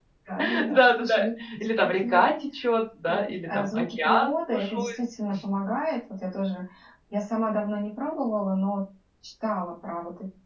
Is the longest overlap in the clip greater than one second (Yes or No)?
Yes